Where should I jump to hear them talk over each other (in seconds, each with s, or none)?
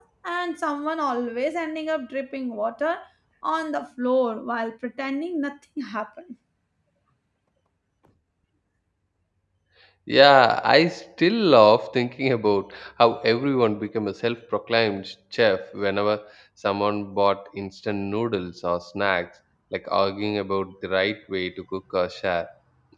none